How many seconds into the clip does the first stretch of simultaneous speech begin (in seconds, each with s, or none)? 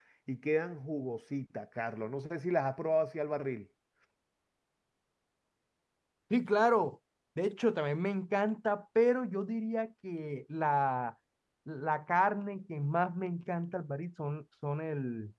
none